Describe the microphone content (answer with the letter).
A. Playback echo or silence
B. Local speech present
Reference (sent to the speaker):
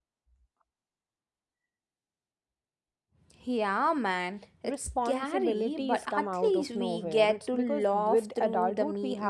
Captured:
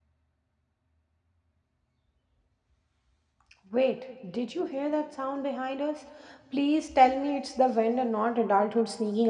B